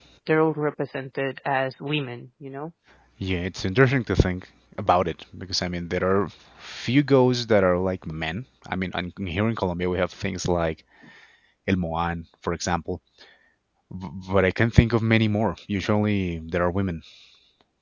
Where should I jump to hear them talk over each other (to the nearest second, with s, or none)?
none